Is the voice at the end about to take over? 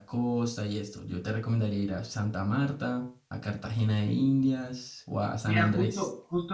Yes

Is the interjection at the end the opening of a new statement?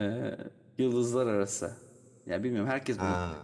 No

